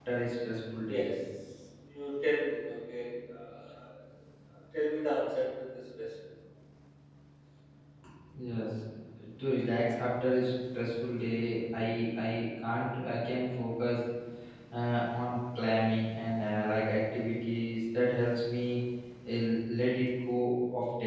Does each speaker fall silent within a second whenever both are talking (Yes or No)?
Yes